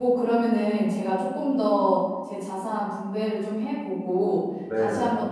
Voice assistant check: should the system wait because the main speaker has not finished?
Yes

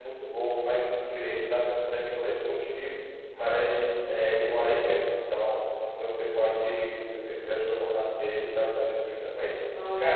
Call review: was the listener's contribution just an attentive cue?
Yes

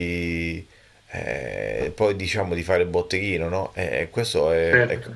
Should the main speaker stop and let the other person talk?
No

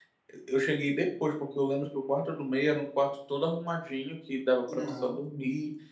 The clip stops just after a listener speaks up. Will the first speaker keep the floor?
Yes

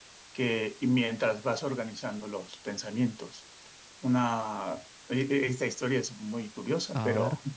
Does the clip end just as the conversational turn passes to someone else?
No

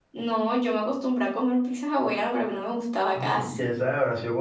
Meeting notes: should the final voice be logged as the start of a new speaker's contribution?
Yes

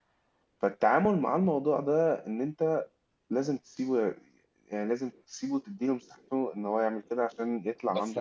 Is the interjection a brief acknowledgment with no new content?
No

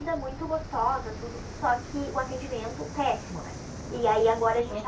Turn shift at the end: No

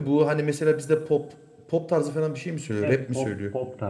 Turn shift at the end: Yes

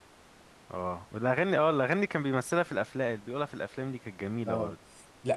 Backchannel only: No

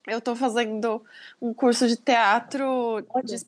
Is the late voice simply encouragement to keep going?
Yes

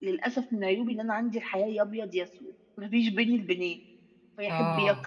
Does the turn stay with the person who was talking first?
Yes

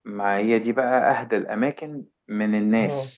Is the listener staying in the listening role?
Yes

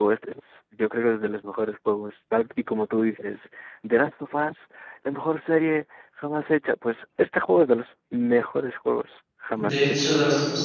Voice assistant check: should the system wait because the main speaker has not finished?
No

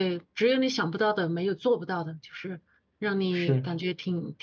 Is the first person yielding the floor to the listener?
No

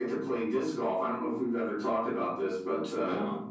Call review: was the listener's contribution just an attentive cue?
Yes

